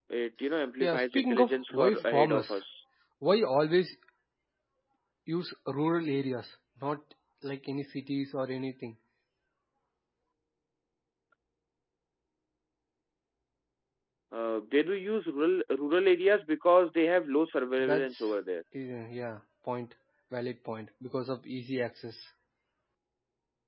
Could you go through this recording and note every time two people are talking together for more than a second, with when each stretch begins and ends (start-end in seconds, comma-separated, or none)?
0.8-2.6